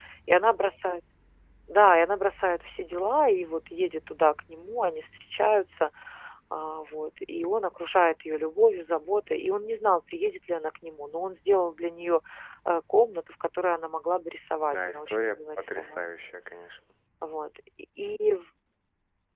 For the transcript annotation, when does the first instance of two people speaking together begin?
14.7 s

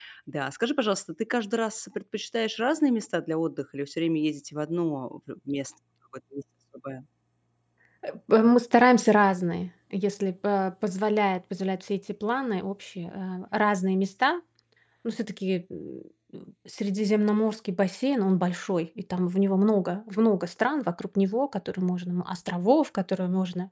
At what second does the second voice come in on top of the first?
none

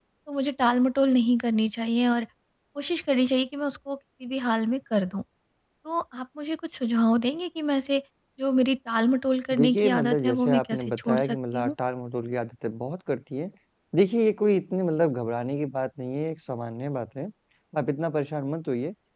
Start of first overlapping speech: 9.5 s

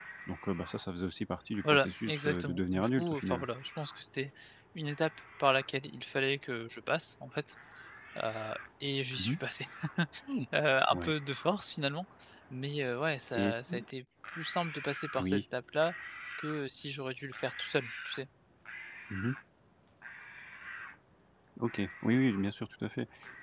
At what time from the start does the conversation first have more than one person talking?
1.7 s

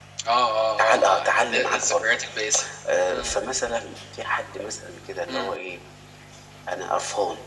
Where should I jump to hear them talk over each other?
0.8 s

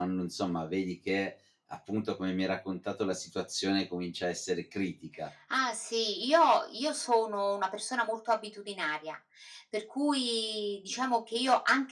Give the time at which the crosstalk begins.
none

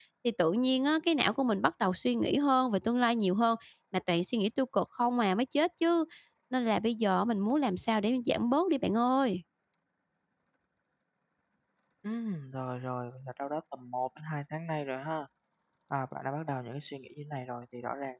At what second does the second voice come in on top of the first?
none

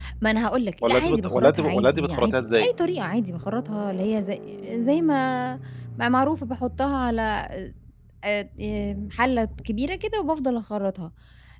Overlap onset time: 0.8 s

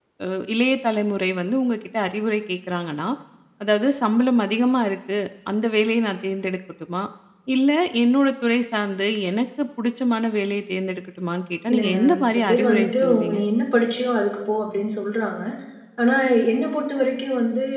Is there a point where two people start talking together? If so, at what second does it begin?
11.7 s

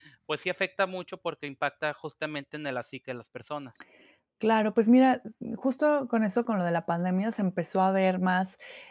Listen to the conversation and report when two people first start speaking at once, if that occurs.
none

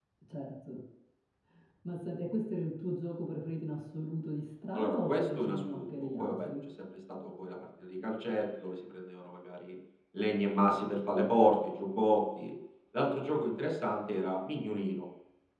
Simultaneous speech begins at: 4.7 s

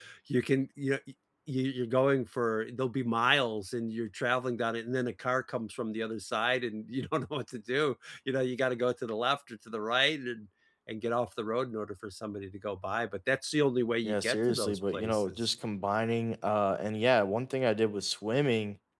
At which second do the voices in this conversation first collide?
14.0 s

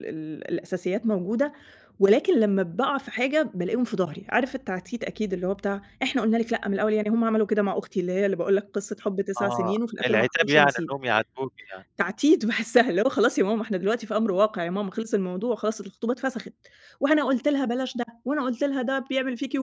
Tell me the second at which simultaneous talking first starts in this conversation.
9.4 s

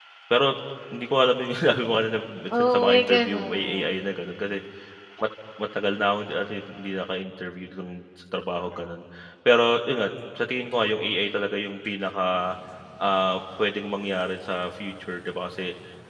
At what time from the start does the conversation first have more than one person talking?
2.5 s

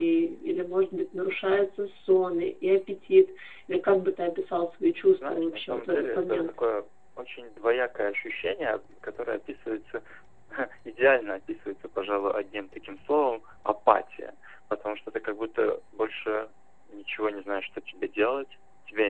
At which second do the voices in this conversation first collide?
5.2 s

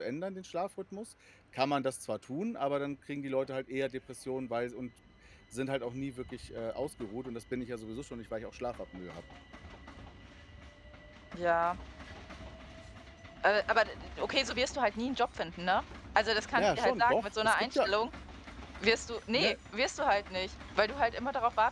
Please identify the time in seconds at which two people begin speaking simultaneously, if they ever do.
16.5 s

